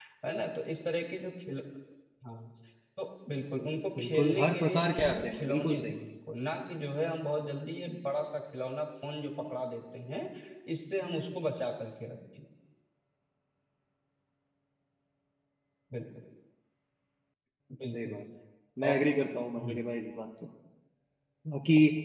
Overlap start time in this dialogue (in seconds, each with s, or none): 4.0 s